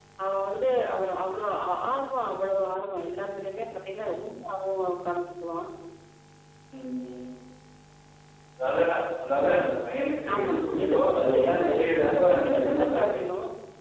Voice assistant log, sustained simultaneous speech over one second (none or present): present